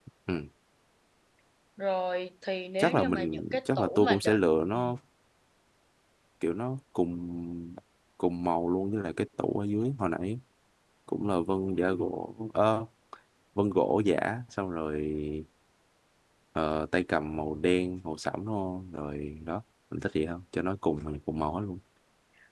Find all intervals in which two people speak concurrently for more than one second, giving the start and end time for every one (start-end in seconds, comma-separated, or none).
2.8-4.4